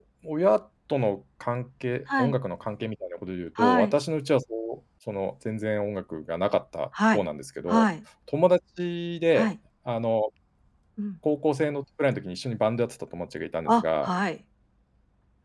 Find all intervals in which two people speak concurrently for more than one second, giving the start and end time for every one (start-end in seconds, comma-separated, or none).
none